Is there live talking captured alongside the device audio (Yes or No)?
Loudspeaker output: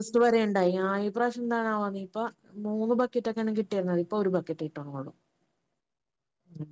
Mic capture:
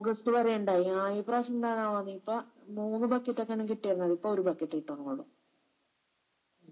No